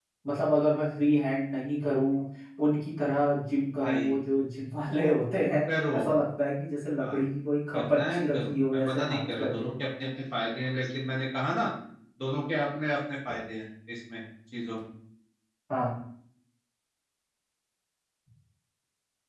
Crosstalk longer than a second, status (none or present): present